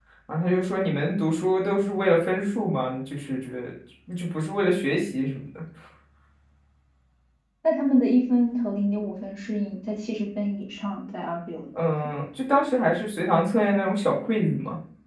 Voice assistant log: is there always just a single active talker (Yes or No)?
Yes